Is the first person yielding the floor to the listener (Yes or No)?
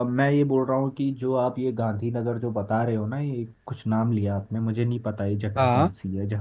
No